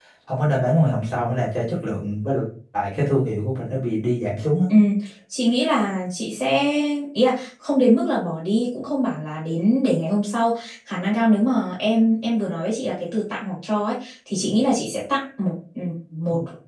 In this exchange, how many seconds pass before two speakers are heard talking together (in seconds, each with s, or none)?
none